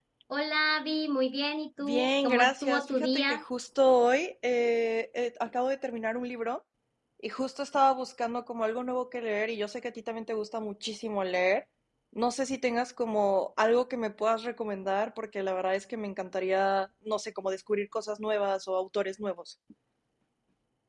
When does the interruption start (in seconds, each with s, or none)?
1.8 s